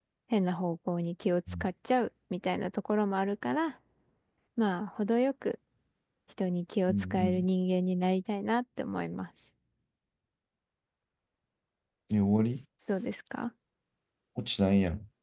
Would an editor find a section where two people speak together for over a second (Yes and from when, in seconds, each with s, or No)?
No